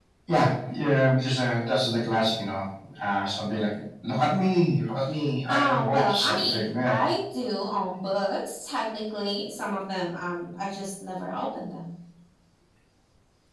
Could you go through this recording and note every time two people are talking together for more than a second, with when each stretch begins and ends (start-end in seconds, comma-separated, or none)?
5.5-7.0